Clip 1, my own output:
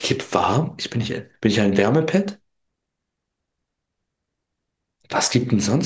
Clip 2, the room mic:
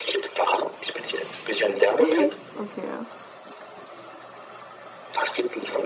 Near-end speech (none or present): present